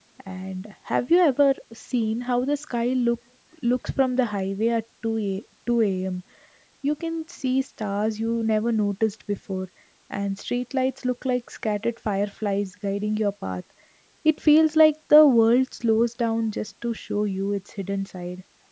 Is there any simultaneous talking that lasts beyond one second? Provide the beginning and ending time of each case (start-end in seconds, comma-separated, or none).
none